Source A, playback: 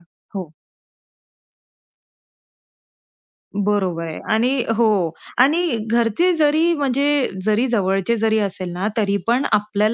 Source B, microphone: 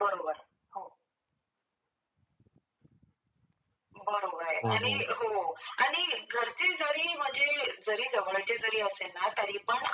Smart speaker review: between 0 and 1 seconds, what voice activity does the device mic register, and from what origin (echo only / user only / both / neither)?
echo only